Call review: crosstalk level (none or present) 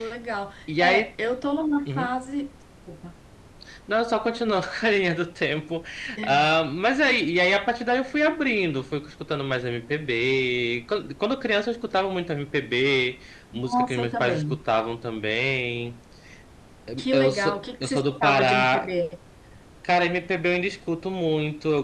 present